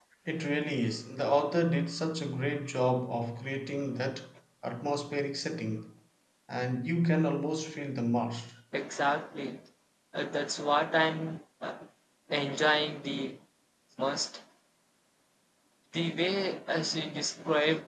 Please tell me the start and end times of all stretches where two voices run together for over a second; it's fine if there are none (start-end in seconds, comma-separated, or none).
none